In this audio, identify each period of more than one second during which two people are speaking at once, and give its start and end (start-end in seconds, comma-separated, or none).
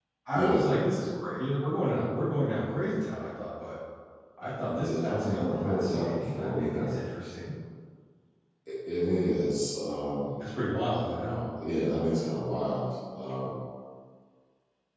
4.6-6.9